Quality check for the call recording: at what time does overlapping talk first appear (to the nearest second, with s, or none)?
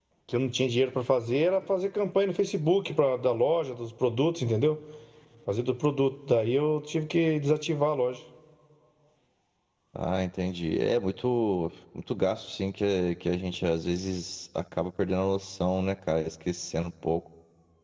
none